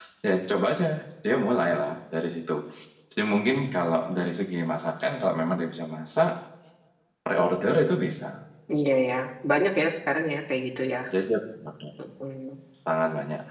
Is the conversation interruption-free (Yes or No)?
Yes